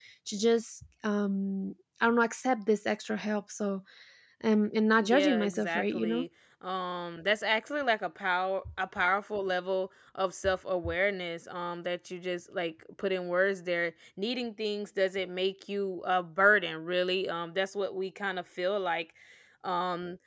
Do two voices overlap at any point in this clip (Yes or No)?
Yes